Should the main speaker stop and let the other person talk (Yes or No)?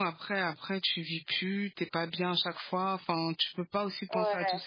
No